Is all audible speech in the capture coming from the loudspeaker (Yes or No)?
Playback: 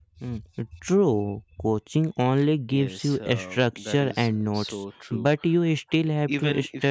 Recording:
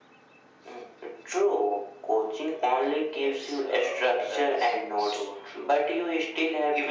Yes